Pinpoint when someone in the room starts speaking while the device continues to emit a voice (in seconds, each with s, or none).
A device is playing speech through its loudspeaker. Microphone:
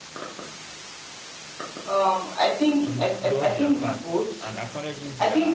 2.8 s